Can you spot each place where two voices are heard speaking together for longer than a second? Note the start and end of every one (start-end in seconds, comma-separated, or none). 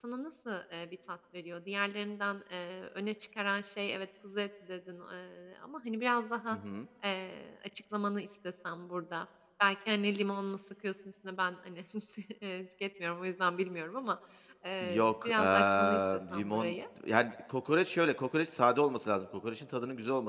14.8-16.7